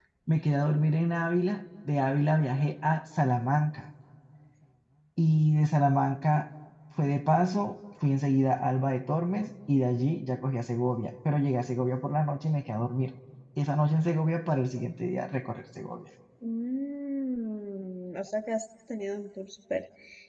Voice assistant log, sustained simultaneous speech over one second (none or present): none